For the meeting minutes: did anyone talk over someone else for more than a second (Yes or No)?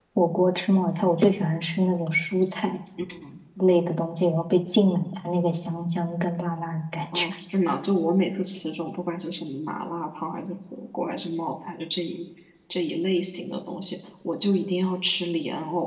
No